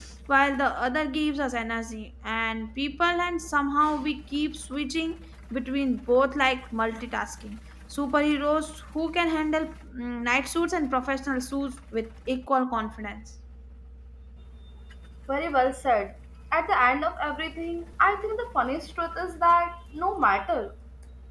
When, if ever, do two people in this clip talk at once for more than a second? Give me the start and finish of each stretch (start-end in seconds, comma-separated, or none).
none